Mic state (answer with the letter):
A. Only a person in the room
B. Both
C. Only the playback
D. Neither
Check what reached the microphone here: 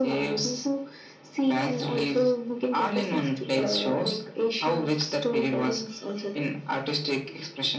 C